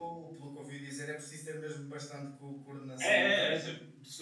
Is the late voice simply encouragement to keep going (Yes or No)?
No